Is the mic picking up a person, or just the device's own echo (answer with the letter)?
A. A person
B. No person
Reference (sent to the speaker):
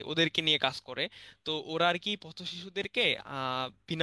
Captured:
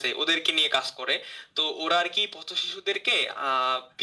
B